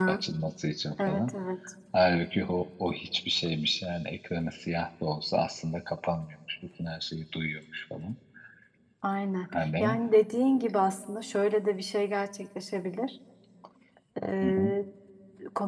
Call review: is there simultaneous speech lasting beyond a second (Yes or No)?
No